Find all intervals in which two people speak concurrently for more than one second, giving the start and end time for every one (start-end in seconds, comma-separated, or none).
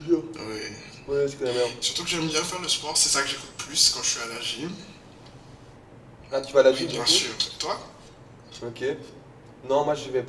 none